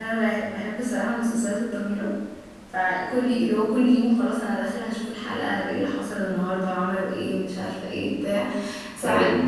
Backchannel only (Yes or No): Yes